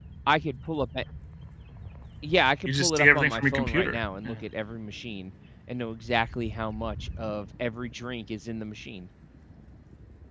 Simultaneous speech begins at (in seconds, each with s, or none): 2.7 s